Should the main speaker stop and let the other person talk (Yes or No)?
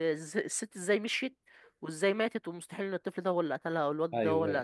Yes